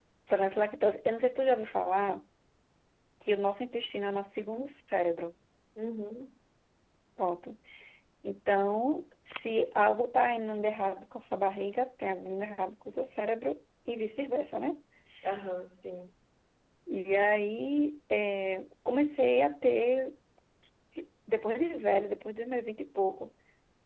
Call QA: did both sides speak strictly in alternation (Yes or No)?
Yes